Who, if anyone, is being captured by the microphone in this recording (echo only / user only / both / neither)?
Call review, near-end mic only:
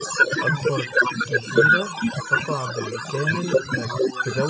both